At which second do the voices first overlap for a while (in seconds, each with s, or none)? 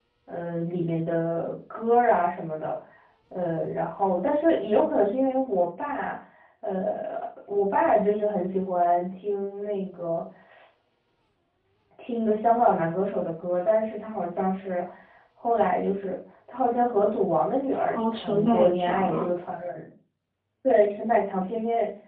17.9 s